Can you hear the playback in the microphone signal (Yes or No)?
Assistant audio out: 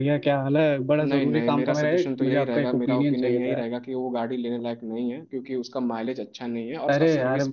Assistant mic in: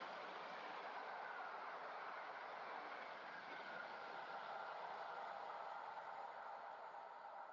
No